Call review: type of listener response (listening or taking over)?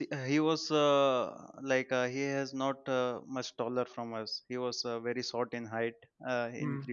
listening